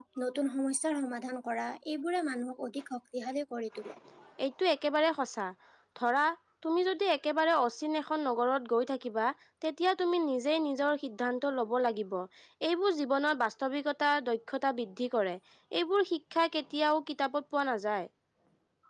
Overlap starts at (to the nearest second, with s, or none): none